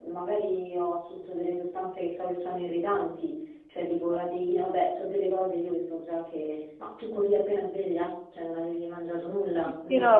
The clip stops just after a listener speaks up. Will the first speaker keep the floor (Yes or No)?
No